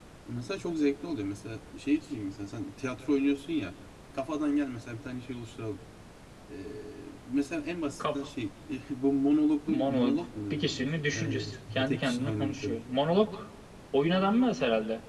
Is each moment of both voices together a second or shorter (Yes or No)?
No